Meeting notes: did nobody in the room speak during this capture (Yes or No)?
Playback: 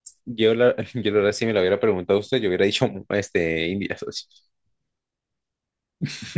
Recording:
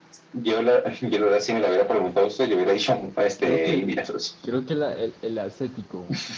No